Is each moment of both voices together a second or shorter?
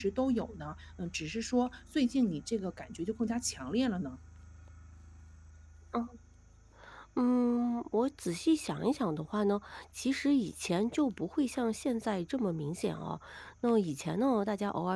Yes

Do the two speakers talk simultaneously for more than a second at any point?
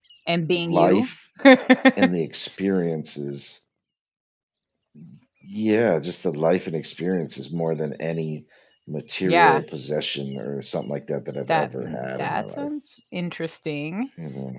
Yes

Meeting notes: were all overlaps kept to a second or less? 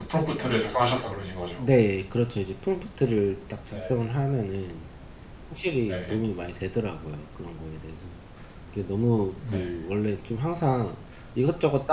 Yes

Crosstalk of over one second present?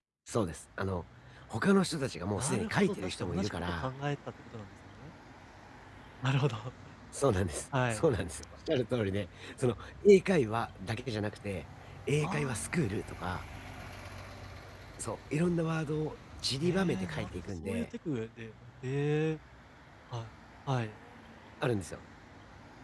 Yes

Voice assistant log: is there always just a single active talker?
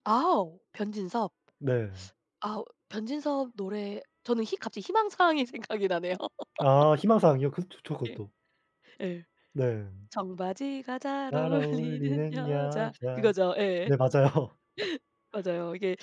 No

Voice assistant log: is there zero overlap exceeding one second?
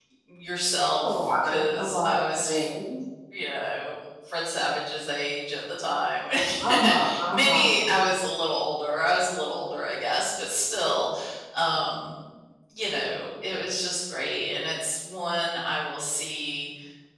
No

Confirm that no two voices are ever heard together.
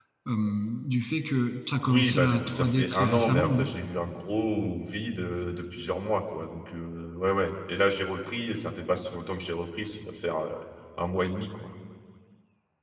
No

